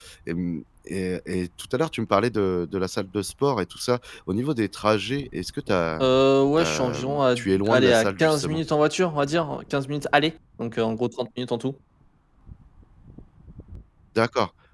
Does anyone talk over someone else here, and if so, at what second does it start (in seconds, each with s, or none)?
6.6 s